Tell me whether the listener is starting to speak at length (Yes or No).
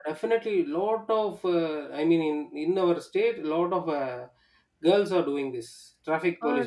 Yes